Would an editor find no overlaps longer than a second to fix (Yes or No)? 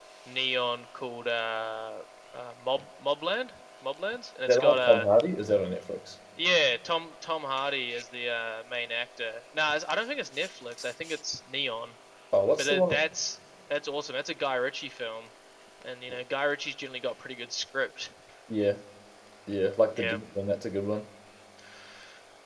Yes